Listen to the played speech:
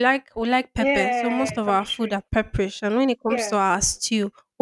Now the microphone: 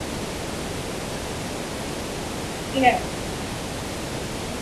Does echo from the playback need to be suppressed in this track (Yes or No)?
No